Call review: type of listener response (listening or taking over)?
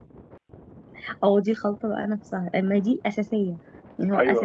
listening